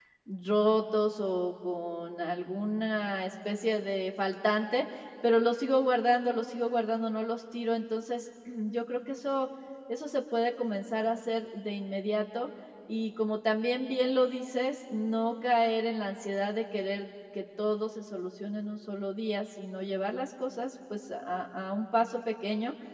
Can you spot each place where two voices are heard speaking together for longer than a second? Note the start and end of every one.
none

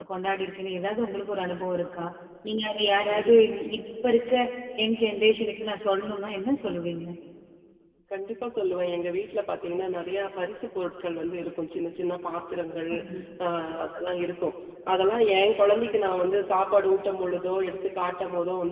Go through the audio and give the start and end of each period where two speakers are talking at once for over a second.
none

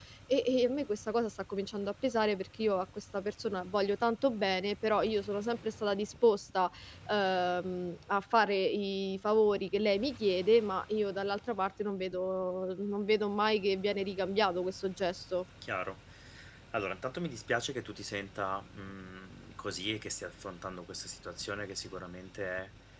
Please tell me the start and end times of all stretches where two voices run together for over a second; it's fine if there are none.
none

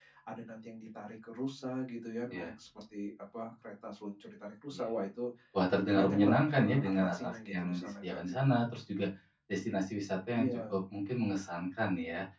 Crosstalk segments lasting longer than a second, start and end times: 5.9-8.2

